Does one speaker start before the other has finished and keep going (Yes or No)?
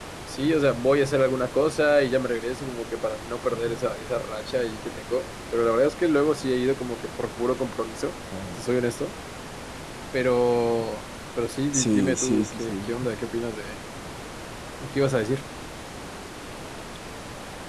Yes